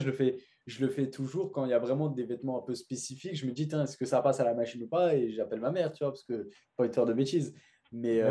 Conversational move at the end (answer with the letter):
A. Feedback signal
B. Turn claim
A